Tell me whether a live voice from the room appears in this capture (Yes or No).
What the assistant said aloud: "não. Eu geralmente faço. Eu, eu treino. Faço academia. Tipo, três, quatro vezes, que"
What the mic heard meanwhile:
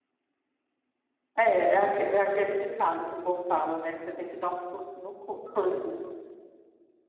Yes